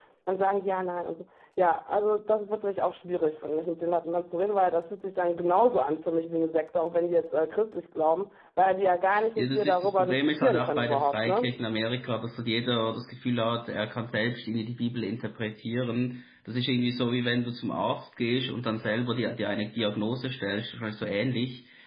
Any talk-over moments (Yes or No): Yes